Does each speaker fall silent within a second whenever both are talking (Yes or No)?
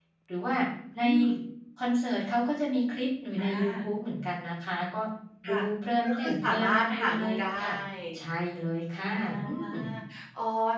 No